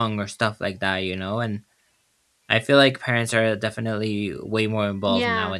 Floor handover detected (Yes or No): Yes